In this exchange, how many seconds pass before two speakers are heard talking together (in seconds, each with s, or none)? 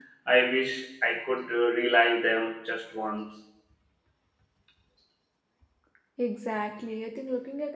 none